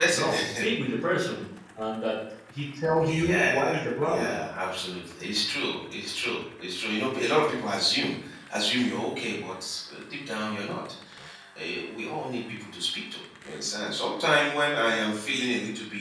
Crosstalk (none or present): present